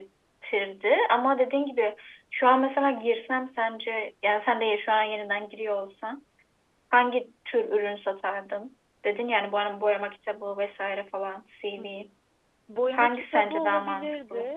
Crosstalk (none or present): present